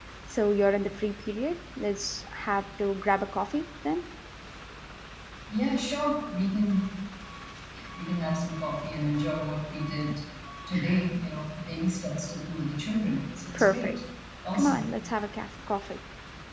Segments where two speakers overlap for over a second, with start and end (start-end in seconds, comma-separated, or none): none